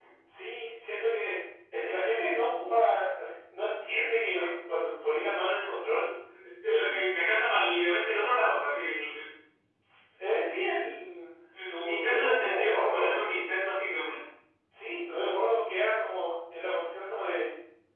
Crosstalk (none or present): present